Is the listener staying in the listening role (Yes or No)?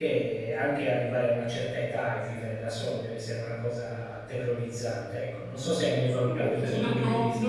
No